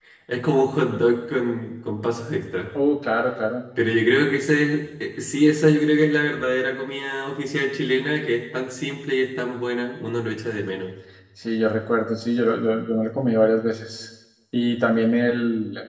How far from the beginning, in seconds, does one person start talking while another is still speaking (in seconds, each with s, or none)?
none